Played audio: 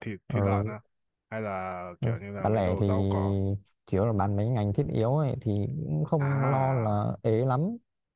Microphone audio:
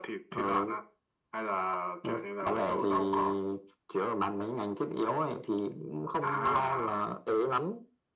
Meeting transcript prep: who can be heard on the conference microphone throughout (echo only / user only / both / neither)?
echo only